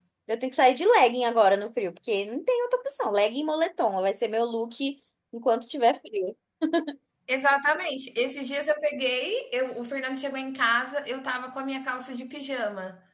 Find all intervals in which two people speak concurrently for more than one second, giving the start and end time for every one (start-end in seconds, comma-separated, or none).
none